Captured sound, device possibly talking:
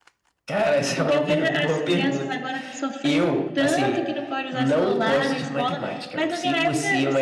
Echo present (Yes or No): Yes